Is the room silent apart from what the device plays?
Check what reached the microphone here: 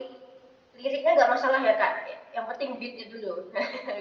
Yes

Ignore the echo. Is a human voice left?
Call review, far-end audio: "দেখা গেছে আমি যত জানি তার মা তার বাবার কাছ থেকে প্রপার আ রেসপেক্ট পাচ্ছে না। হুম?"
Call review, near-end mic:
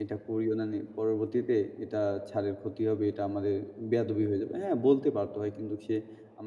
Yes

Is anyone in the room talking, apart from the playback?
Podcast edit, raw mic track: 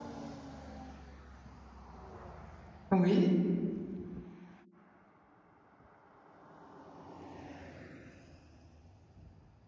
Yes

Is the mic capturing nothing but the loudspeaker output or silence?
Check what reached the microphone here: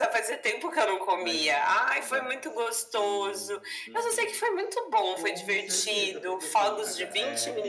No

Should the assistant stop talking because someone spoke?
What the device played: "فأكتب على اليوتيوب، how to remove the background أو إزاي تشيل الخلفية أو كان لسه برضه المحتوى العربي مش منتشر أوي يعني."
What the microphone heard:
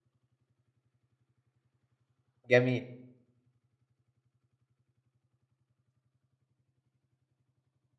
Yes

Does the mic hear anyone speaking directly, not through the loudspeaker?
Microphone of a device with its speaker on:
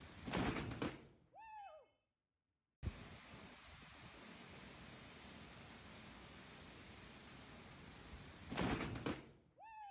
No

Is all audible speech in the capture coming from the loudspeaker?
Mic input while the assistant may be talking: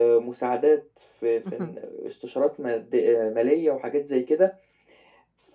No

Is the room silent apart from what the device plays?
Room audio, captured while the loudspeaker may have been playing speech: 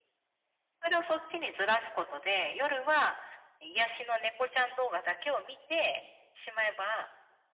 Yes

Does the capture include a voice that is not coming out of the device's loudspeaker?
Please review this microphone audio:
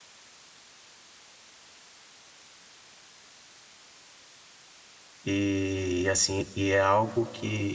Yes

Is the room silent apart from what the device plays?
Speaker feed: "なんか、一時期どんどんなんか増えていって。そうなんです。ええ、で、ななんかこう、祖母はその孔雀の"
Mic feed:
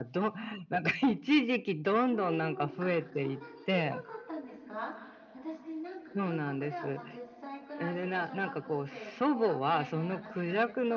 No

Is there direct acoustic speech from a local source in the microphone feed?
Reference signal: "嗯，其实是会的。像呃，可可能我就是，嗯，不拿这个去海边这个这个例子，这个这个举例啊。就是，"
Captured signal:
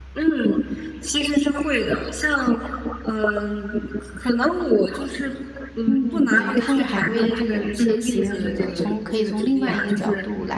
Yes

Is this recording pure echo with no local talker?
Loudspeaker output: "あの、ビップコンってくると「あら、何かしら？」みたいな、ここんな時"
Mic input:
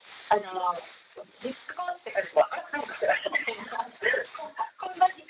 Yes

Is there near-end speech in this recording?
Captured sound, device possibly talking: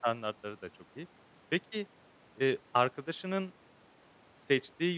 Yes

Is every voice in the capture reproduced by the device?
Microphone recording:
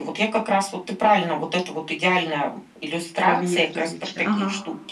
No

